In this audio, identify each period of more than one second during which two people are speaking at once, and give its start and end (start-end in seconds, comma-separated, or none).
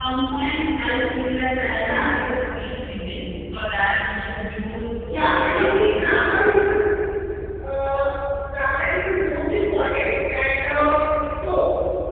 5.1-6.3